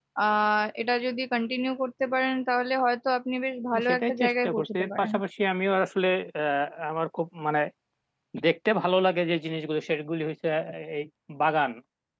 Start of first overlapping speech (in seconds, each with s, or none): 3.7 s